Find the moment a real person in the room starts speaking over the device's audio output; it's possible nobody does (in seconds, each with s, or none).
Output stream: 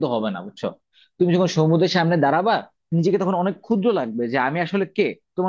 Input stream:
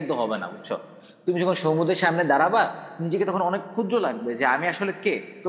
none